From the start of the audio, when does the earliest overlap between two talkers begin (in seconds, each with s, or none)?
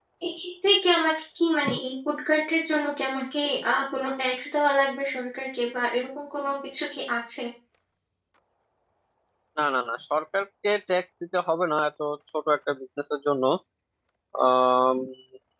none